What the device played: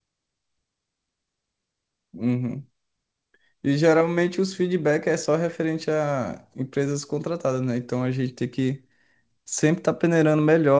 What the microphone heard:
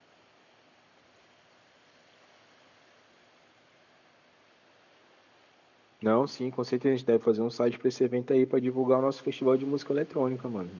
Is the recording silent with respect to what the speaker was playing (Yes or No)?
Yes